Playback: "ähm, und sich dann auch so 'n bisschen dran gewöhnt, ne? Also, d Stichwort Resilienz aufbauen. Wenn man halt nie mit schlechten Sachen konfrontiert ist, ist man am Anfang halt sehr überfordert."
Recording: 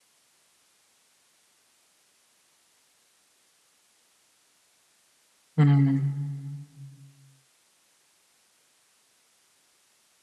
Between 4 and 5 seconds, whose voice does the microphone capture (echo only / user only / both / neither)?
neither